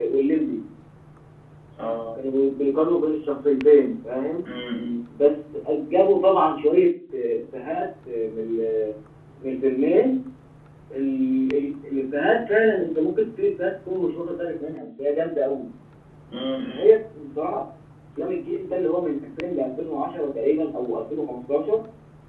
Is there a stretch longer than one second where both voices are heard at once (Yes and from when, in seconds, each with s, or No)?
No